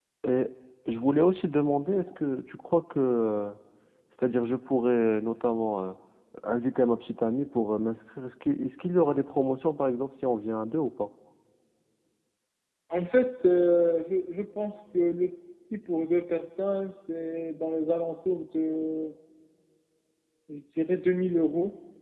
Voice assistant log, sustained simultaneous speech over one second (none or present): none